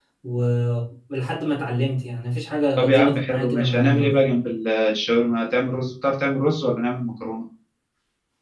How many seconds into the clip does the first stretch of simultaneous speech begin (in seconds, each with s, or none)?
2.8 s